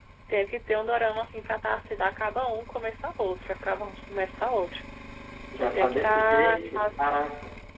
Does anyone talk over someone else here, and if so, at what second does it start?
5.6 s

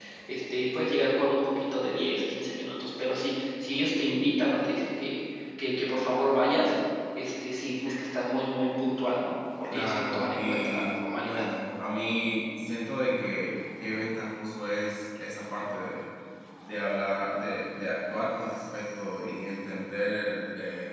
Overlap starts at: 9.7 s

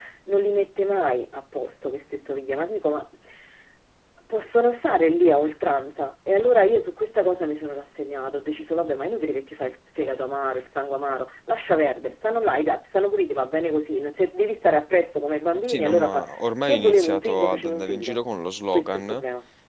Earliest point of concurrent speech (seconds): 15.7 s

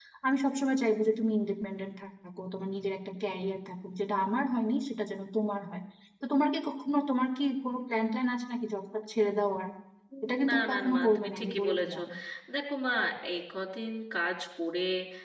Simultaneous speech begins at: 10.5 s

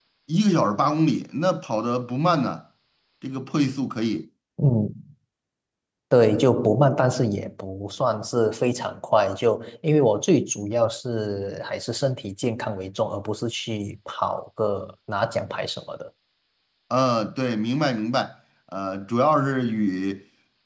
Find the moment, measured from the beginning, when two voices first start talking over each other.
none

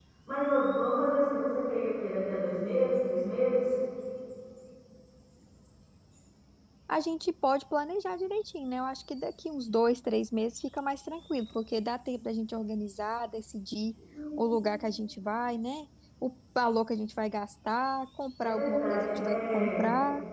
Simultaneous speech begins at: 18.4 s

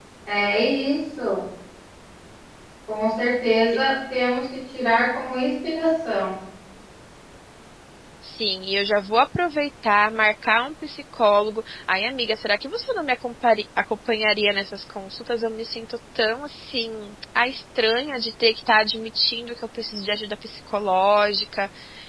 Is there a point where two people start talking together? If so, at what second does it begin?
none

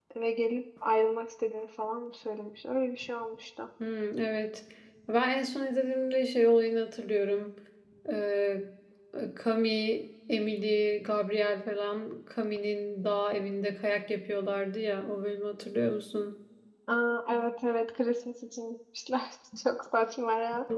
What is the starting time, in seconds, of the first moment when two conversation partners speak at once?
none

